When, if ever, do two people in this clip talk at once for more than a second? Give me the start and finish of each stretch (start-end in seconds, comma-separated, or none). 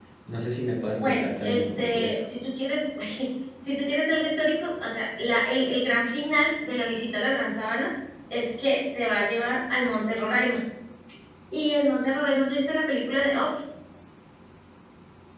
0.8-2.2